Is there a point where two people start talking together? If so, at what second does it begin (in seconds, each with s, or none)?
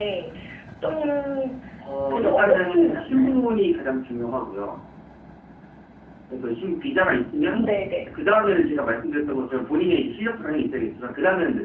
2.1 s